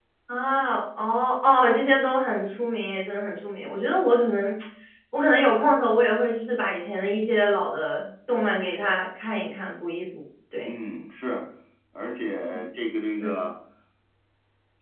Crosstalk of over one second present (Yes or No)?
No